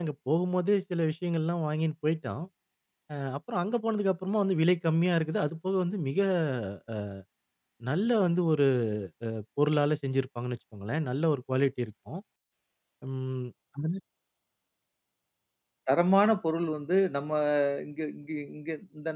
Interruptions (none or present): none